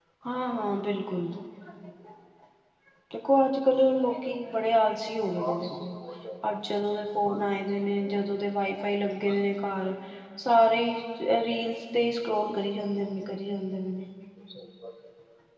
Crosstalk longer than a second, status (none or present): none